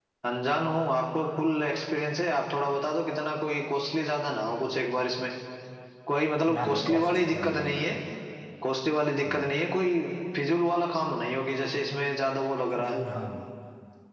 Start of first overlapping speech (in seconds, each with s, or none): 6.5 s